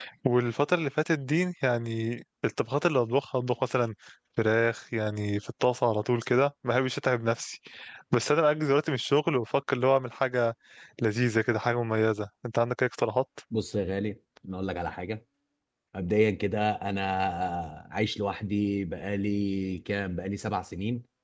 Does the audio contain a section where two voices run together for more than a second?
No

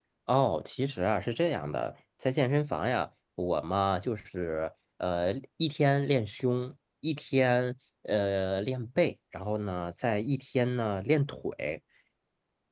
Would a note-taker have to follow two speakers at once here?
No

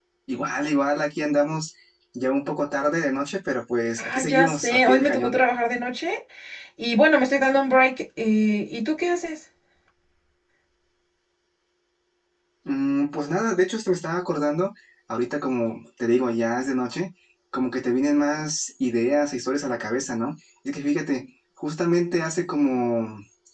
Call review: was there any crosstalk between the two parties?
Yes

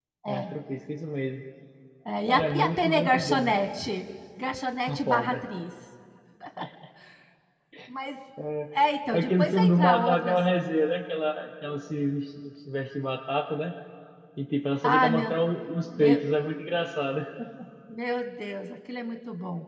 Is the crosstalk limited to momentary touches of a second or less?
No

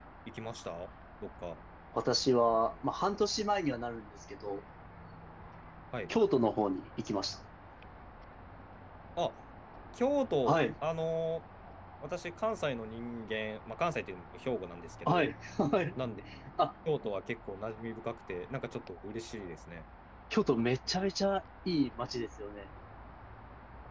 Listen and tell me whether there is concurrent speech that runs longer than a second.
No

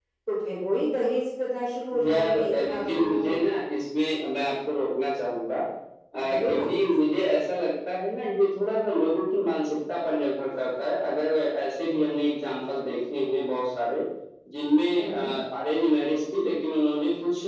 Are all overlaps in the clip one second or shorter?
No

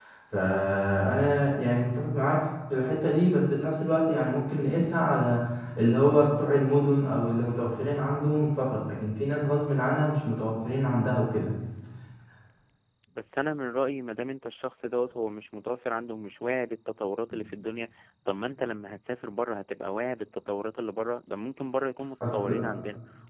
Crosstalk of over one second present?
No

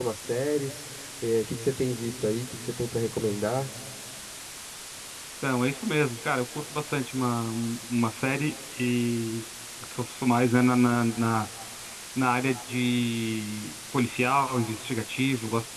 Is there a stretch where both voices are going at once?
No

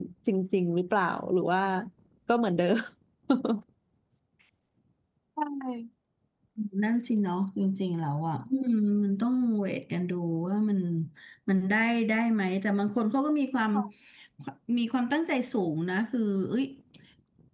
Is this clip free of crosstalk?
Yes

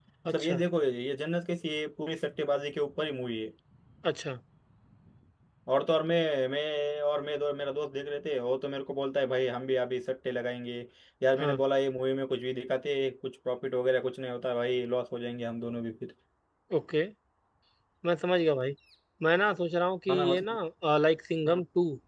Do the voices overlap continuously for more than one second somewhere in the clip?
No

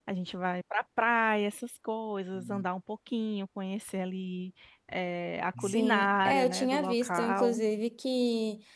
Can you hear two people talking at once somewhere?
Yes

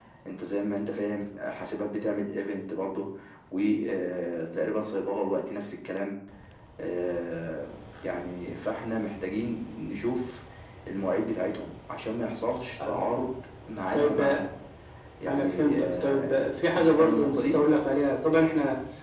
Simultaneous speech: Yes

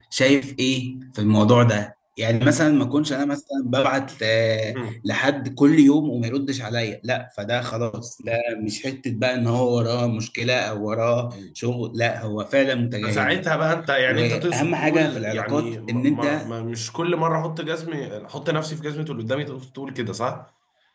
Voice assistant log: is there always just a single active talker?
No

